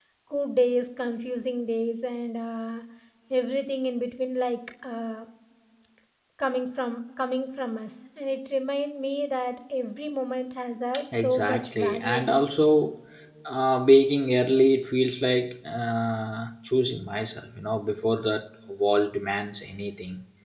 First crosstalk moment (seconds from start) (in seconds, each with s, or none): 10.9 s